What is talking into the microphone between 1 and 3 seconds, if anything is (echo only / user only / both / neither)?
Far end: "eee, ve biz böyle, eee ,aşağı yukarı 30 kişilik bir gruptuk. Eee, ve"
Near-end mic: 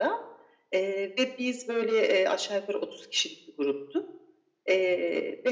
echo only